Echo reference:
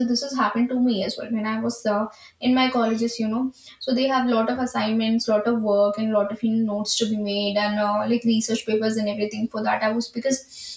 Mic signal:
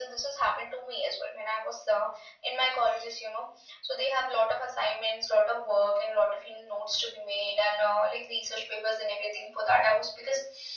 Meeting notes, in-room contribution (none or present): none